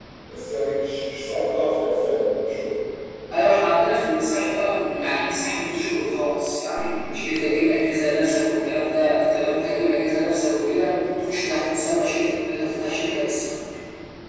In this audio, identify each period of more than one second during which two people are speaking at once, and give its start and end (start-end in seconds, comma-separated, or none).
none